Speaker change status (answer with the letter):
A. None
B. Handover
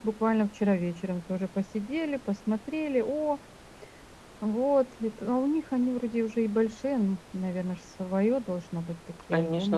B